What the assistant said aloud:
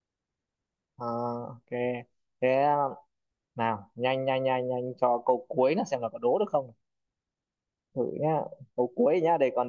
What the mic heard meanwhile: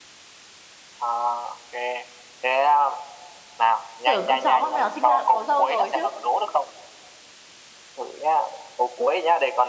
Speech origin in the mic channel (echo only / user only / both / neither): both